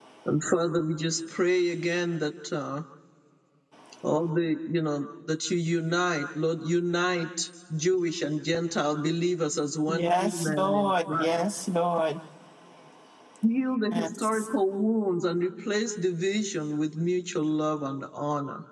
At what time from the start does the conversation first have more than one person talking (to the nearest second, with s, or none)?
10 s